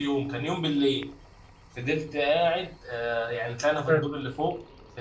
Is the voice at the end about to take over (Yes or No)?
No